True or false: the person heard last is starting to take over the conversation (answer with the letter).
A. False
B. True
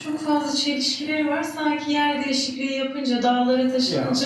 A